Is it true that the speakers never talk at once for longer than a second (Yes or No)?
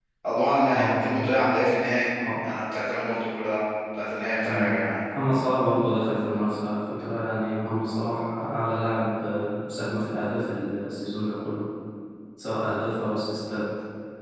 Yes